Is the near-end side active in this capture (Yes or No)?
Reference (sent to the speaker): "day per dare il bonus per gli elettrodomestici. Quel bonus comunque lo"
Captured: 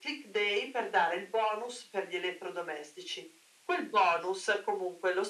No